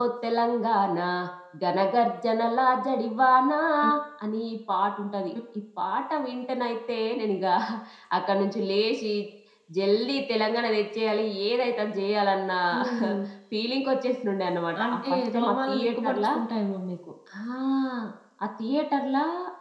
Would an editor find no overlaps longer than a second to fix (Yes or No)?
No